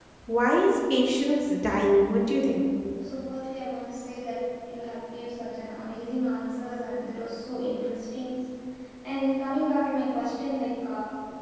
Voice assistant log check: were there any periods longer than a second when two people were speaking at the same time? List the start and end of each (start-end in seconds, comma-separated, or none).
none